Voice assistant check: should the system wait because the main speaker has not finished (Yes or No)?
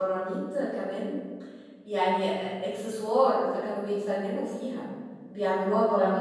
Yes